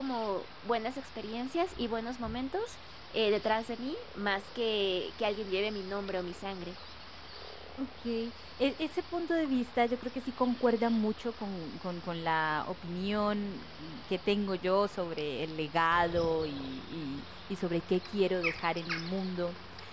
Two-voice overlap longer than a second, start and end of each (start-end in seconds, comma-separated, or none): none